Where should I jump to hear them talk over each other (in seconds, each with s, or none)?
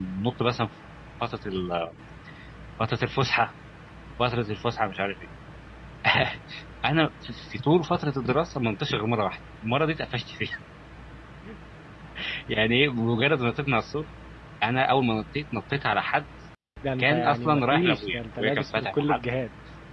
17.0 s